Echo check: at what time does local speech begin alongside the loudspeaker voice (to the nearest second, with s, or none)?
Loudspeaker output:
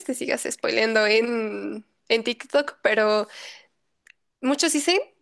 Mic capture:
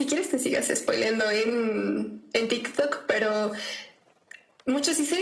none